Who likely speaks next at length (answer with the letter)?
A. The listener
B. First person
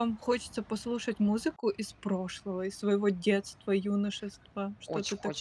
A